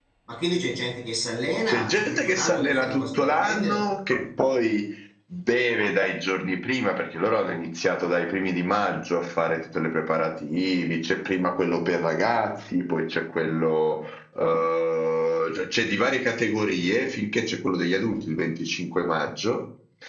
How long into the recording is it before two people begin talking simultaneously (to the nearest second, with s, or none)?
2 s